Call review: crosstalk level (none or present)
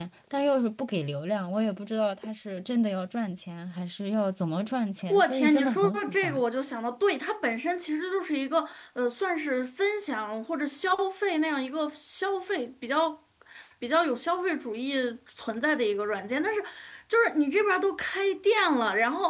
present